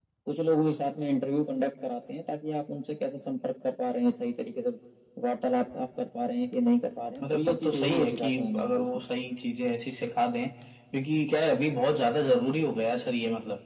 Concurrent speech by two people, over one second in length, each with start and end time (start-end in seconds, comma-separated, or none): 7.2-9.0